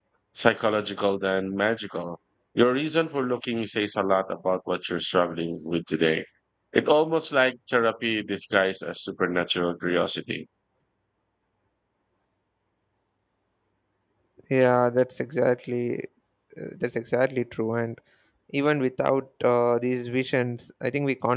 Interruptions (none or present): none